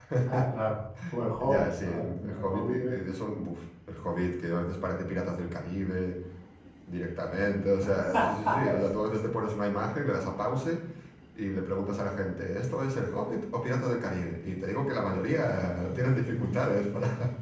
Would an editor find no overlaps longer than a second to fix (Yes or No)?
No